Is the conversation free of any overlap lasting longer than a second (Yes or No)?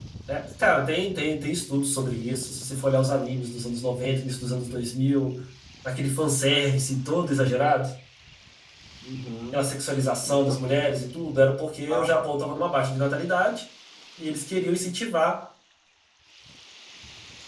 Yes